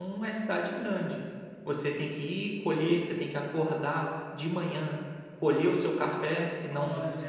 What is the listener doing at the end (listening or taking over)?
listening